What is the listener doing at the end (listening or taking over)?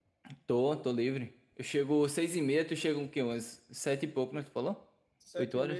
taking over